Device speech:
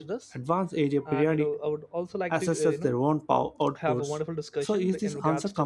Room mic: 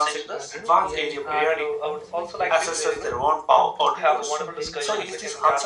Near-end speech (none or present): present